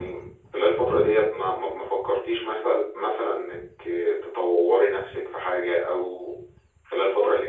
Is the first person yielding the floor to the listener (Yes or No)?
Yes